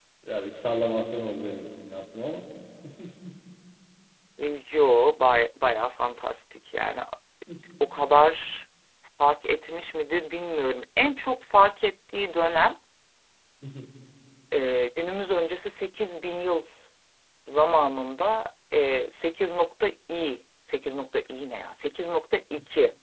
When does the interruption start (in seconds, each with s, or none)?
none